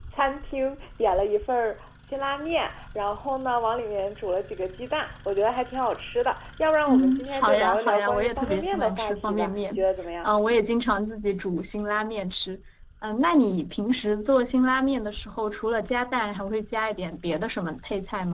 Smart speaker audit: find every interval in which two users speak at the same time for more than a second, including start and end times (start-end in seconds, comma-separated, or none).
6.9-9.8